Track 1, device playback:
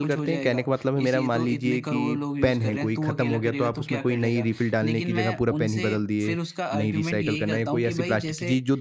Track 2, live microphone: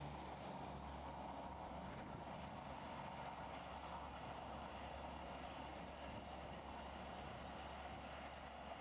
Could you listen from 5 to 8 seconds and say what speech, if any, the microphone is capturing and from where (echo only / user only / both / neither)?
neither